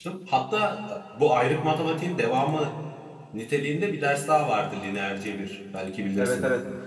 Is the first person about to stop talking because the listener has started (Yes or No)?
Yes